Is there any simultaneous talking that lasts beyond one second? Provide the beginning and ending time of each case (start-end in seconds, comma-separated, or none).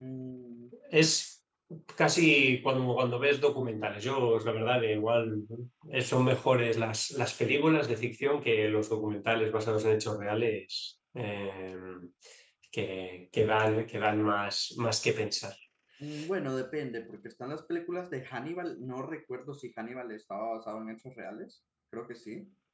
none